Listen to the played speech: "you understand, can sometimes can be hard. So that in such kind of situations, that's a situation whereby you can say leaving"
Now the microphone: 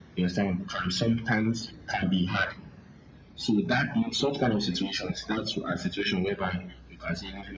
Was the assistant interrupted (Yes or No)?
No